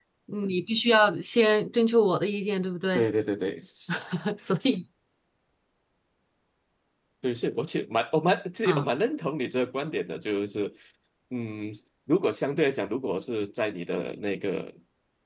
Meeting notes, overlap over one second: none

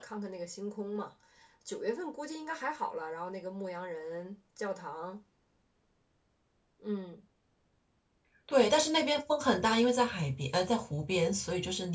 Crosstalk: none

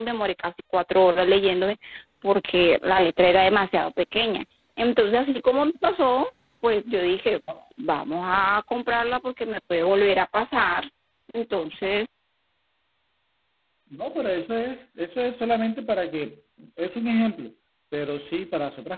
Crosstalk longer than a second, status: none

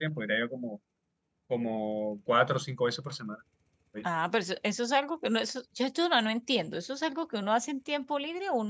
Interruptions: none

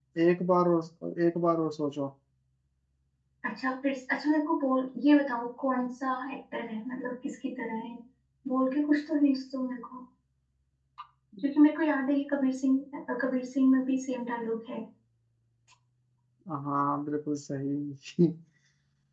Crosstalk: none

